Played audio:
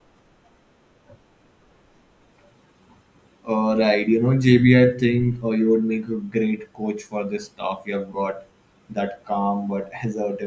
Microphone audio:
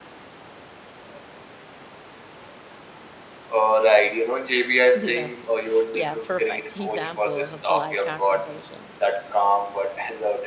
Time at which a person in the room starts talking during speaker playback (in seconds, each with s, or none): 4.9 s